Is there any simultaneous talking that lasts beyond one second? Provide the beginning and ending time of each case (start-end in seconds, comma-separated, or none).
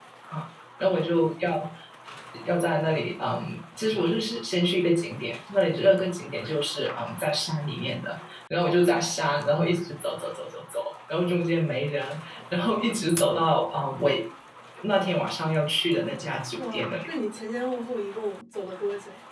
none